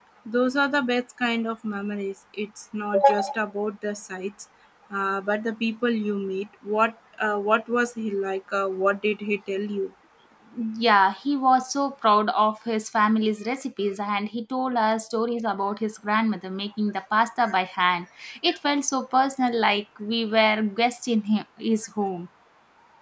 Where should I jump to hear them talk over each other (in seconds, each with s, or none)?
none